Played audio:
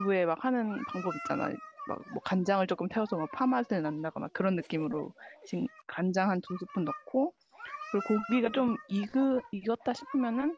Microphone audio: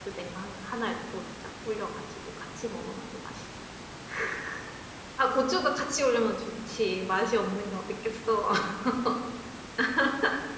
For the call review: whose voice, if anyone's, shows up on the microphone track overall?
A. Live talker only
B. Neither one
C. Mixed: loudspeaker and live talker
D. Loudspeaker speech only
A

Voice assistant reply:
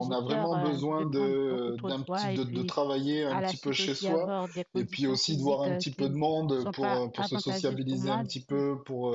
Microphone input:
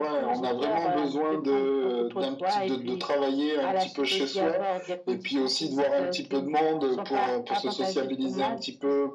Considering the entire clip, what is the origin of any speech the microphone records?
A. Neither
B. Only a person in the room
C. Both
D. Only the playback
D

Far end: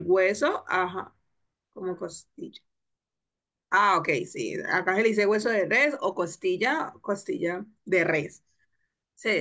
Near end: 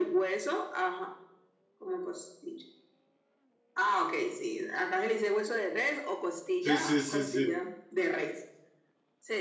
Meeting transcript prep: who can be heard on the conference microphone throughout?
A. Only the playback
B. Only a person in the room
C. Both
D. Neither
C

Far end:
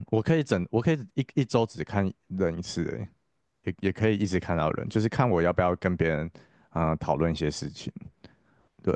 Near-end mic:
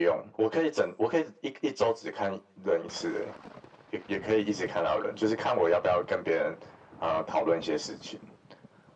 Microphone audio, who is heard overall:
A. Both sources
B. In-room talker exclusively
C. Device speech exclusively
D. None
C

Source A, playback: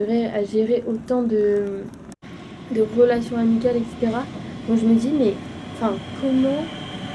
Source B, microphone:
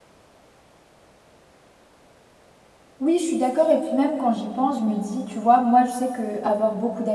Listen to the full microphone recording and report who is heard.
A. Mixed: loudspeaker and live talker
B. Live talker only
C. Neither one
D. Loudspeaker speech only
B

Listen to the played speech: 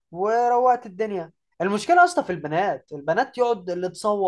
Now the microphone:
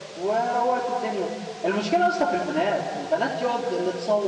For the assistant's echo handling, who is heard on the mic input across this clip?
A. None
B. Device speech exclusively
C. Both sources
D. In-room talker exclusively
B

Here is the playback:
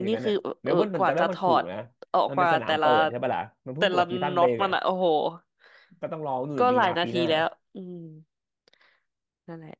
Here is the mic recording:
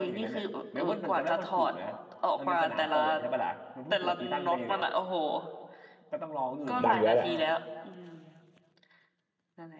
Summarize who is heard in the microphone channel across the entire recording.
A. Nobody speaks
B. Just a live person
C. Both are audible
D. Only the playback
C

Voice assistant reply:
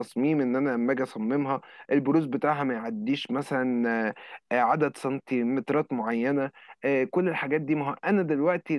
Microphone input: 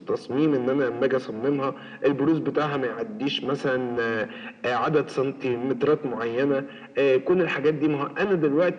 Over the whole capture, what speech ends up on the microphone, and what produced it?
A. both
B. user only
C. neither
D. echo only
D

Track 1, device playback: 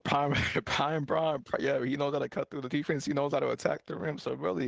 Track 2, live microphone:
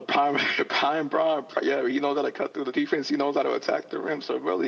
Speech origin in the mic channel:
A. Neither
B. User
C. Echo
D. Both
C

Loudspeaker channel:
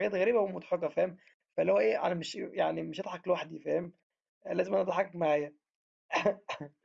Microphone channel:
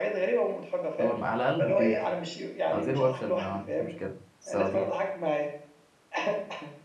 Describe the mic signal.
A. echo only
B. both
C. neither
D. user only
B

